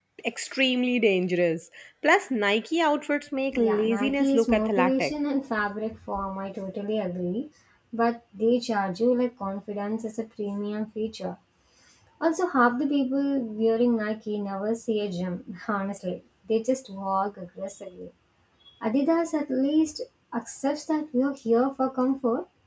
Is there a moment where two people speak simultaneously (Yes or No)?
Yes